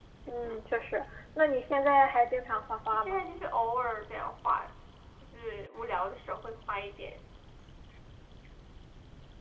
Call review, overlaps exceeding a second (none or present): none